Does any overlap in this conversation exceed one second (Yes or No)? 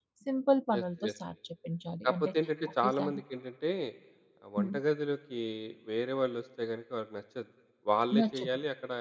No